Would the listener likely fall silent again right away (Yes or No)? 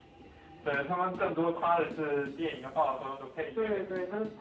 No